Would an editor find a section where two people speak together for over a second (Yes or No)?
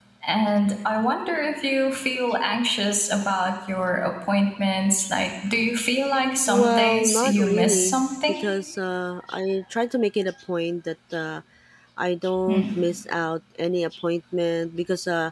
Yes